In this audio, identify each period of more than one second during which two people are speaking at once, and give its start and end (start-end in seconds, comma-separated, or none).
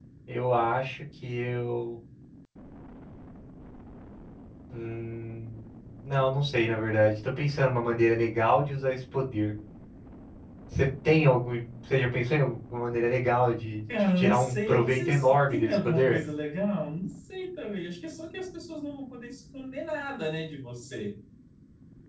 14.0-16.2